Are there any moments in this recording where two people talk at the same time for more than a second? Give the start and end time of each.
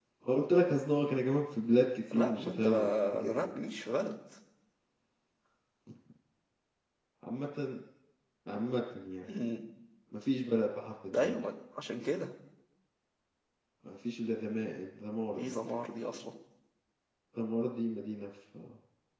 2.1-3.5

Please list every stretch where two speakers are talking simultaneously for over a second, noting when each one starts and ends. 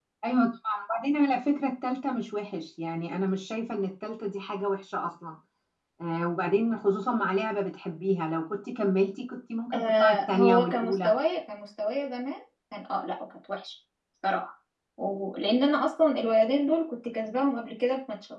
9.7-11.1

